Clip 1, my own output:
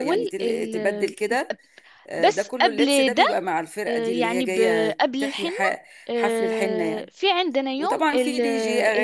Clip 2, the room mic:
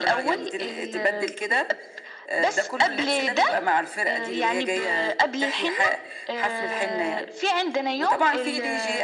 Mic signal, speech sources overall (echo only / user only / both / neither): echo only